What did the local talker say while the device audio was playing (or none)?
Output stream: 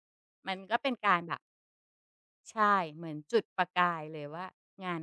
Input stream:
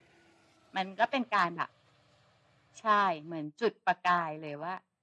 none